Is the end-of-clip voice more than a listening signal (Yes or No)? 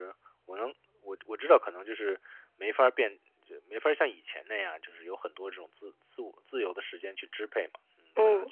No